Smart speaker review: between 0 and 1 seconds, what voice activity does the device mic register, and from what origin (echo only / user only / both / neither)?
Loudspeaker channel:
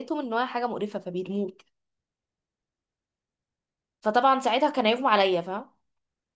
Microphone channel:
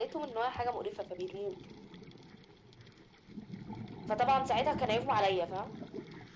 echo only